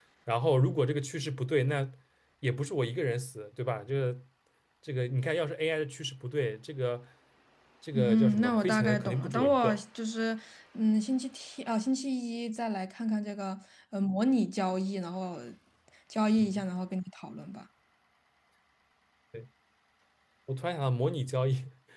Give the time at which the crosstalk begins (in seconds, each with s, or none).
7.9 s